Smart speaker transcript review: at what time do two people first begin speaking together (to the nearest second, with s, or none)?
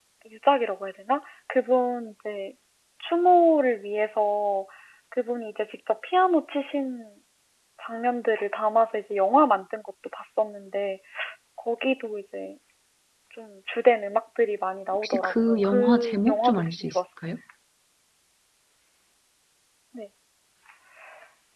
15 s